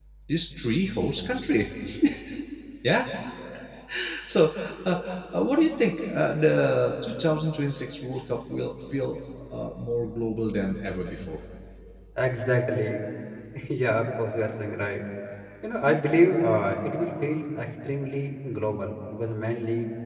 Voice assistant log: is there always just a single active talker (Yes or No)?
Yes